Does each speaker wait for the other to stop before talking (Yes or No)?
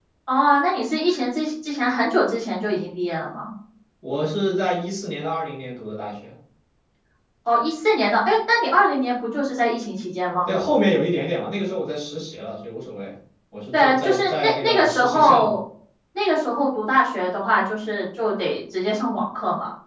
No